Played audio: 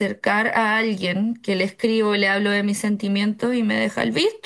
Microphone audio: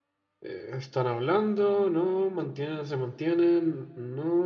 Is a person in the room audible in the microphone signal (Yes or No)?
Yes